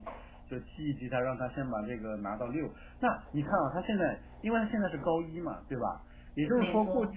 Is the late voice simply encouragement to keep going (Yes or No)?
Yes